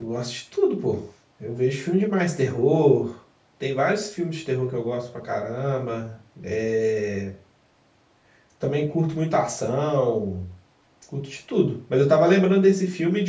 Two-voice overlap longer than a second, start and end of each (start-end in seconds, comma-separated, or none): none